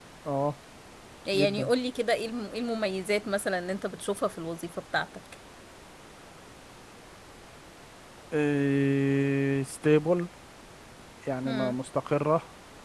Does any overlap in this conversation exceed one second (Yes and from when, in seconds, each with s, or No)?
No